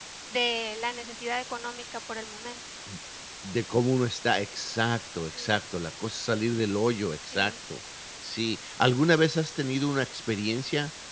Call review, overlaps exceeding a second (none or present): none